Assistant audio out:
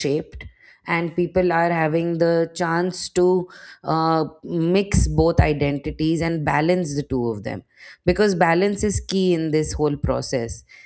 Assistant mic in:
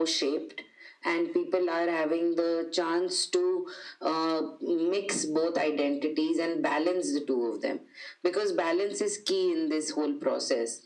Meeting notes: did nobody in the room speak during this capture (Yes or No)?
Yes